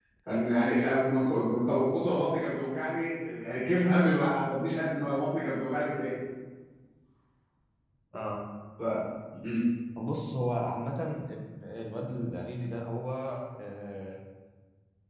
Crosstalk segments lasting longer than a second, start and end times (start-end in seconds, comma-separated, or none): none